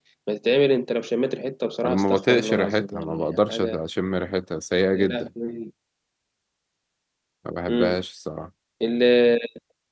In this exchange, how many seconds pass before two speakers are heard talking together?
1.8 s

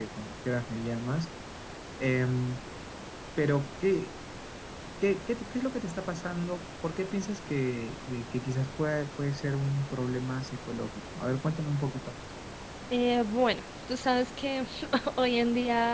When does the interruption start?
none

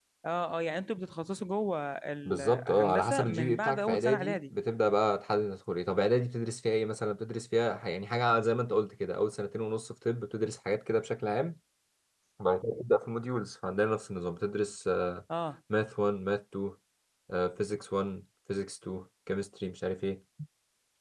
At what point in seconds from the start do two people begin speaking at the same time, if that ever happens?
2.2 s

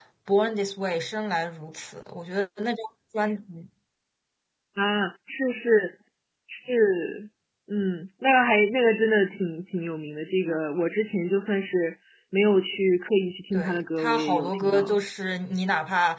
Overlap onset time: 13.5 s

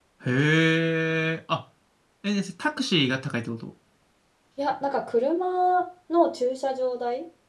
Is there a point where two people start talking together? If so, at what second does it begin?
none

